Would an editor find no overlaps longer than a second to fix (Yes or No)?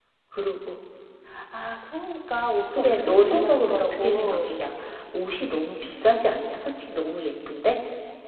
No